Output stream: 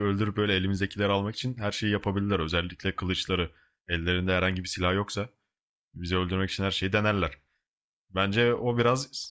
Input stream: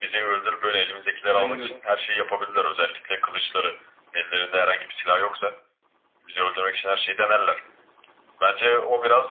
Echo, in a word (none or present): present